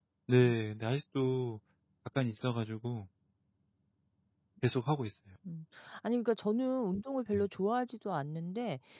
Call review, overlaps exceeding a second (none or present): none